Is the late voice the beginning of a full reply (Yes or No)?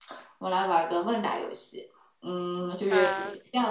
No